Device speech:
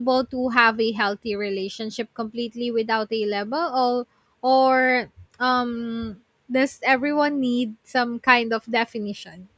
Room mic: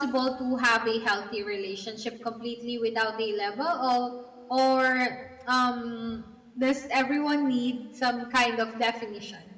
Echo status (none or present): present